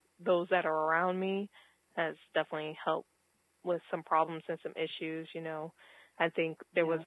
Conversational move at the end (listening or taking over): listening